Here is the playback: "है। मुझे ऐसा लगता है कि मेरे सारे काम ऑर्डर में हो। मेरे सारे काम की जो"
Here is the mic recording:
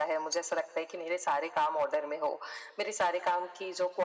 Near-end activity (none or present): none